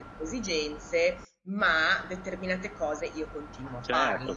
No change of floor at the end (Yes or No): No